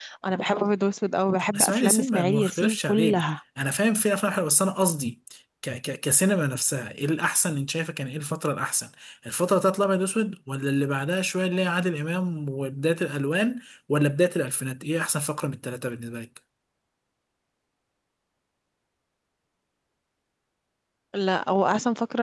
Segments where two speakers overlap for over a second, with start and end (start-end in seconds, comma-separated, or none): 1.5-3.2